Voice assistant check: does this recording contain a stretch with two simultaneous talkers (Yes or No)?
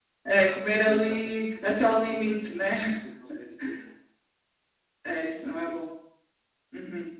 Yes